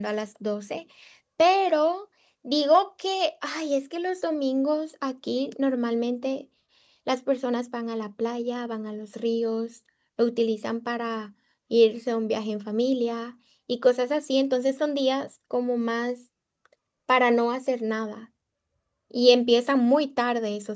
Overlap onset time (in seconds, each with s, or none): none